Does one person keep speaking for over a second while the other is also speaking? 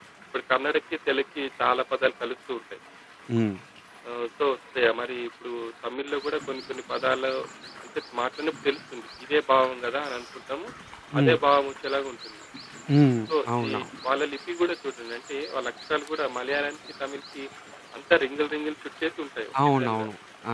No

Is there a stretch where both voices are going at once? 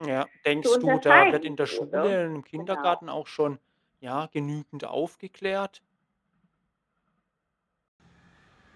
Yes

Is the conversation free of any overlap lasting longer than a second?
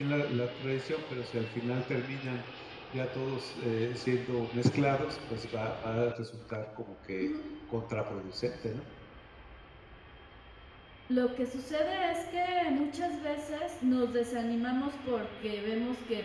Yes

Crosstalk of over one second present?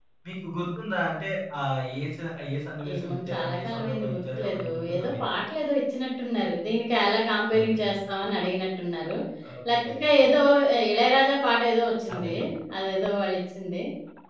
Yes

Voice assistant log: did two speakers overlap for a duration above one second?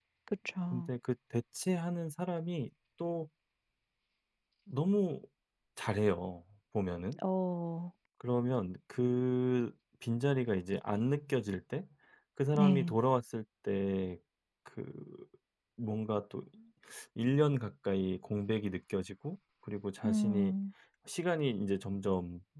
No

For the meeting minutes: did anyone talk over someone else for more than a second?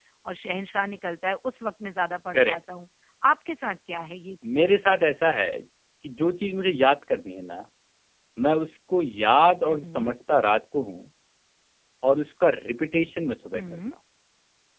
No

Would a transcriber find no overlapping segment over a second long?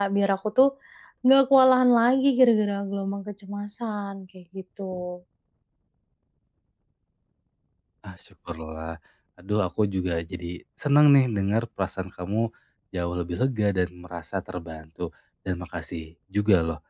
Yes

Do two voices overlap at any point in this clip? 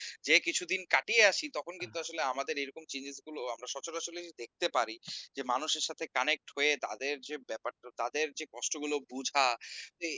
No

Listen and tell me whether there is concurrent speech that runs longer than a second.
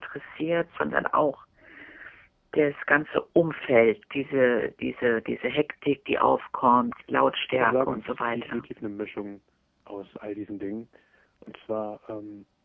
Yes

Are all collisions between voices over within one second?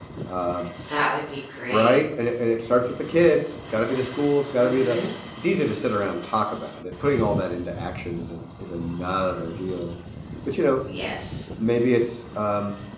Yes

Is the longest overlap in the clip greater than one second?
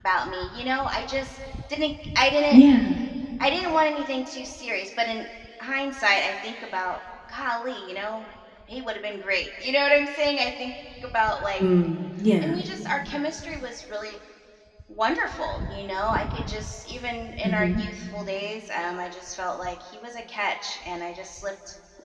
No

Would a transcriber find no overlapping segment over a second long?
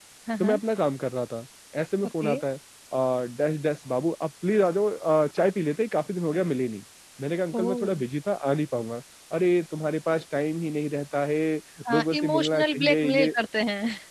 No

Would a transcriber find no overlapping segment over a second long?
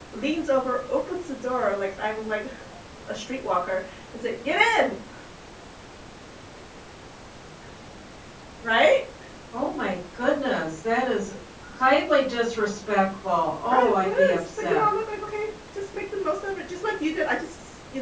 No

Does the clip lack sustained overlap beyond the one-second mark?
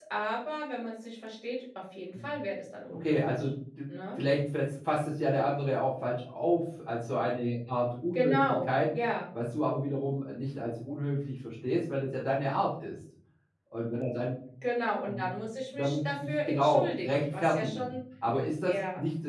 No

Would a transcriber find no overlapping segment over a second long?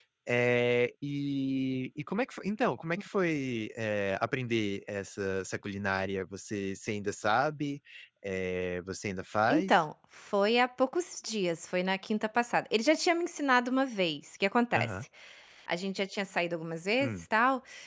Yes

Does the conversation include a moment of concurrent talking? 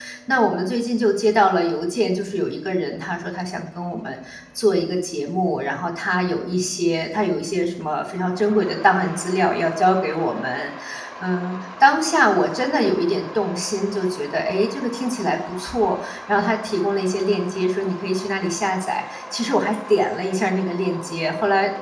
No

